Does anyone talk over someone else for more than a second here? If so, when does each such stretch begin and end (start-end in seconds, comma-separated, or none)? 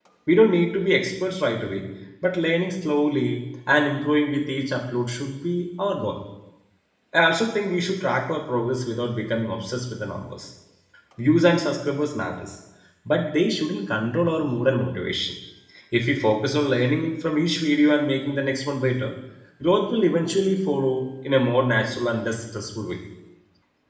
none